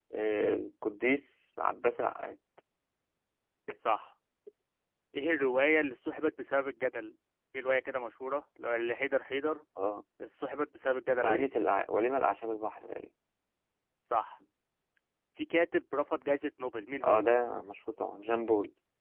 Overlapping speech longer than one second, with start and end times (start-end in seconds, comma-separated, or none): none